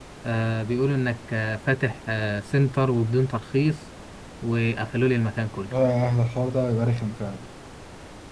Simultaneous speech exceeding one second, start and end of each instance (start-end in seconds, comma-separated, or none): none